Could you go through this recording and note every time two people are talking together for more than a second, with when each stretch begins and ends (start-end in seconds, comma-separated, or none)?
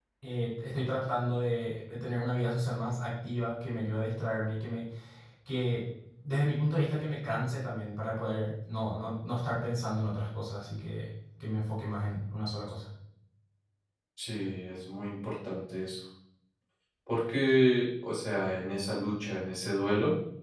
none